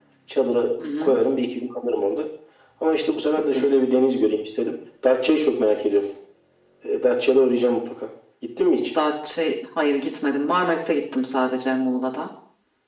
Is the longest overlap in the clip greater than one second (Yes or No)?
No